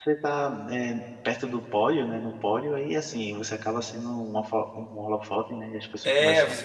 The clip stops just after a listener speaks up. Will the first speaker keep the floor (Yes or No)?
No